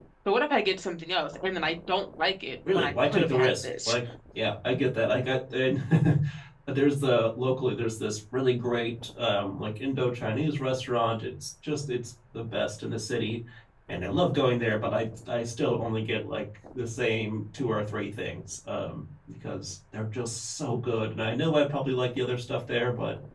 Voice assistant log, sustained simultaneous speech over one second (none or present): present